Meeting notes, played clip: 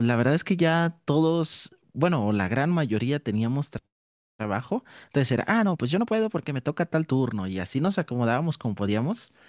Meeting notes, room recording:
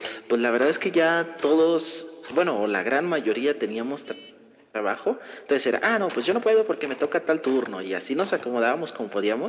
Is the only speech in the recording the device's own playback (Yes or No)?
Yes